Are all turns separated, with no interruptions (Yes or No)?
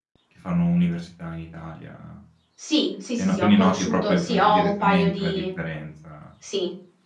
No